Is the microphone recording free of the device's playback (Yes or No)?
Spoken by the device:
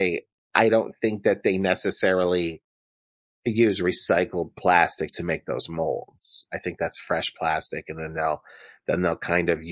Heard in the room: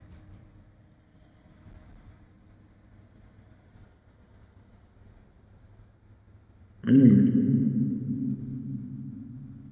Yes